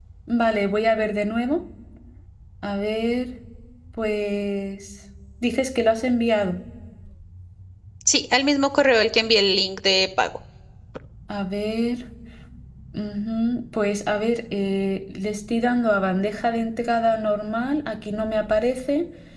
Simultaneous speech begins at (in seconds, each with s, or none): none